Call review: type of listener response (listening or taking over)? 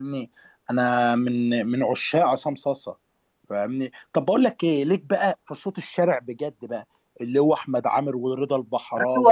taking over